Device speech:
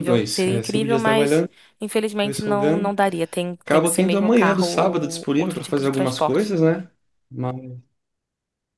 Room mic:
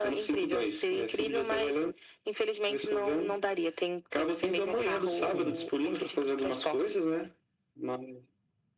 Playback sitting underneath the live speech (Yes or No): No